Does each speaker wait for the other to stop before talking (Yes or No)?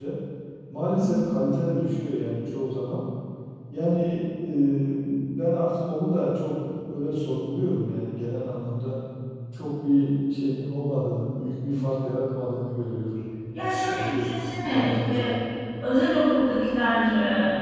No